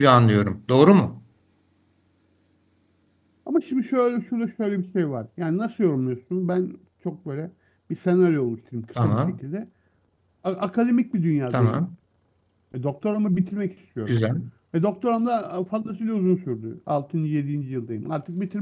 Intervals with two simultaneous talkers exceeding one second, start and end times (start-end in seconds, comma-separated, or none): none